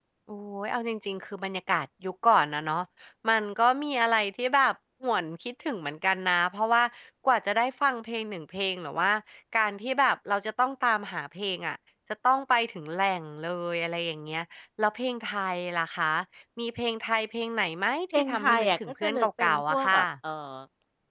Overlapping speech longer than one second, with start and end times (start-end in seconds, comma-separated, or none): 18.2-20.0